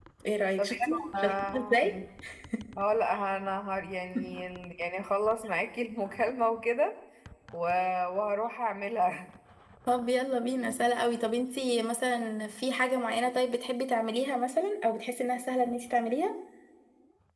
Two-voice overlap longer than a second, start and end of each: 0.6-1.9

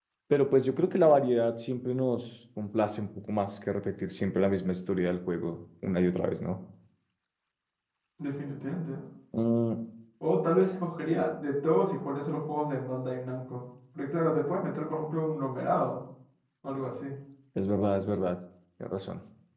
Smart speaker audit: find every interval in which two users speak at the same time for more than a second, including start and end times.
none

